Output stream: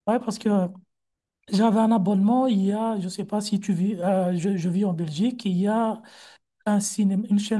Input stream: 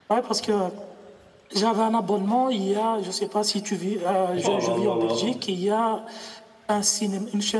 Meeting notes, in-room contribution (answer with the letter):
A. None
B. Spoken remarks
B